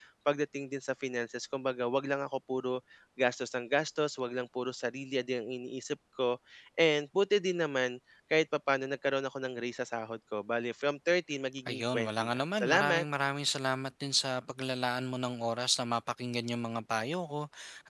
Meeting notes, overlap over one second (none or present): present